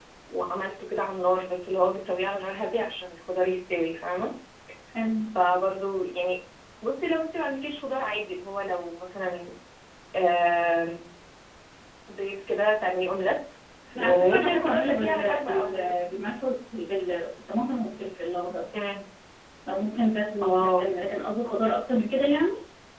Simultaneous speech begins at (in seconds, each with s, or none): 13.9 s